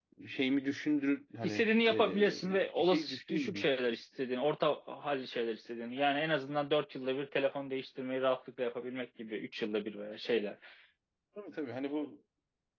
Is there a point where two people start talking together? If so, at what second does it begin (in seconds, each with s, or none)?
1.4 s